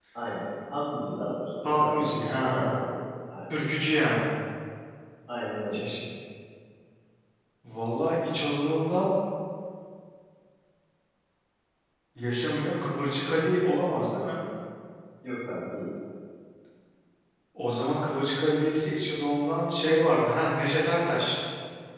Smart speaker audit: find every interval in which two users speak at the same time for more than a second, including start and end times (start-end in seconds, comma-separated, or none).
1.6-2.9